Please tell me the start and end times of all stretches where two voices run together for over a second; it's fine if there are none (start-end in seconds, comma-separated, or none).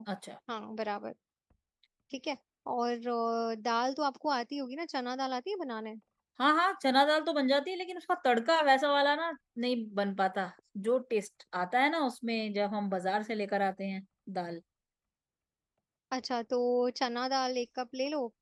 none